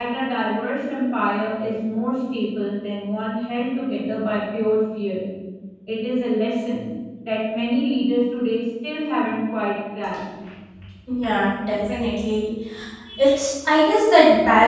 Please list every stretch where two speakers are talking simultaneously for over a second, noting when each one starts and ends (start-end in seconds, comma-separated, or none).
none